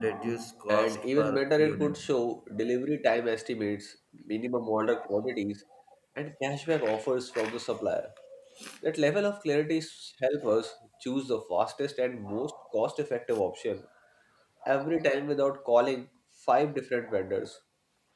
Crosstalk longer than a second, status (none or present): present